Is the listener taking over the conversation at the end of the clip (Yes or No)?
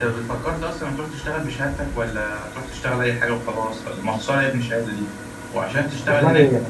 No